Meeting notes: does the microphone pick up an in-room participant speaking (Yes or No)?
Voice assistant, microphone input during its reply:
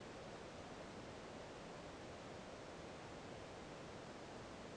No